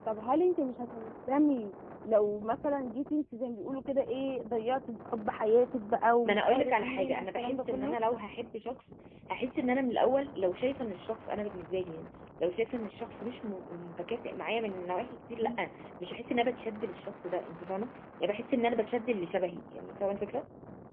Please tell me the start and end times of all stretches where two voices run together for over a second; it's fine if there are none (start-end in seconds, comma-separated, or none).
6.2-8.0